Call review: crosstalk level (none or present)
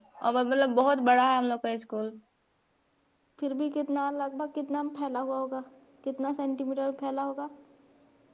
none